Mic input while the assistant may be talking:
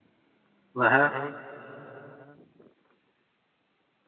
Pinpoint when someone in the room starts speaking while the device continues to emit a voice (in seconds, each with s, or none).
0.7 s